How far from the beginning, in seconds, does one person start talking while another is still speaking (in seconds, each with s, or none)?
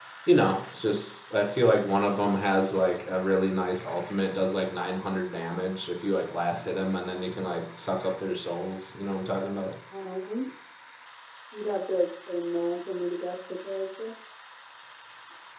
none